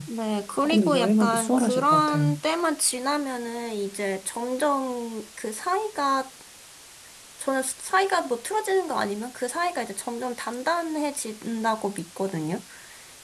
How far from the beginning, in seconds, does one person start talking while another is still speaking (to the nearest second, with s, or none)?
1 s